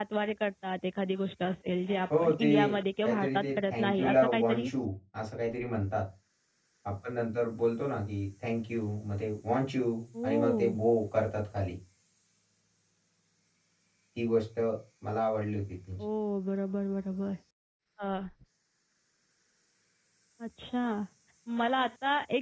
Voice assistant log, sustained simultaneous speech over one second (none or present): present